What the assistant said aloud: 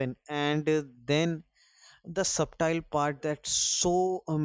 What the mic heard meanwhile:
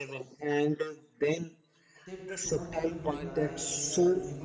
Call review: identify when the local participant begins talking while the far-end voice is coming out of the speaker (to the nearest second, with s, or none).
2 s